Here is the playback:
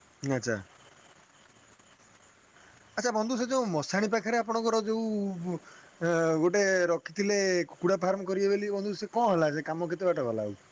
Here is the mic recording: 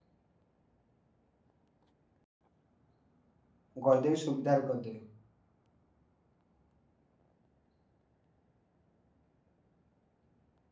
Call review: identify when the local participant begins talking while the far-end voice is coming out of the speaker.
3.8 s

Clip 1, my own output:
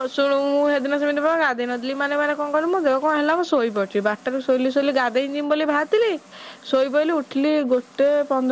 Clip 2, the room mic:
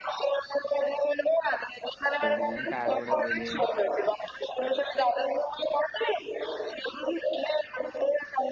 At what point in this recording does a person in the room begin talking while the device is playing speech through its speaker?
2.2 s

